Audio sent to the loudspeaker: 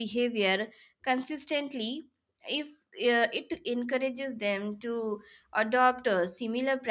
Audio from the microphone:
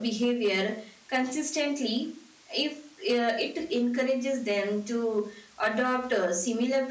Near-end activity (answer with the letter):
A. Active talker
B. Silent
B